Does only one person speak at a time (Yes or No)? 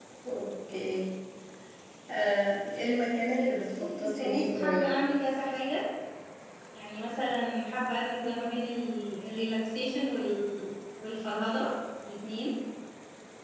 No